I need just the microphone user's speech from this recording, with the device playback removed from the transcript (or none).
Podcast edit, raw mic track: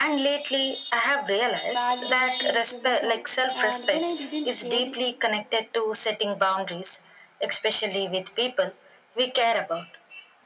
validation from others, and when I didn't get it,